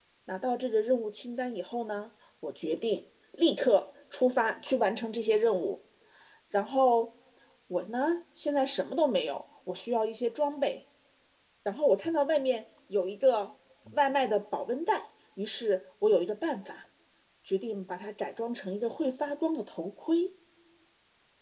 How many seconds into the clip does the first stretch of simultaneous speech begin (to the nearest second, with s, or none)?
none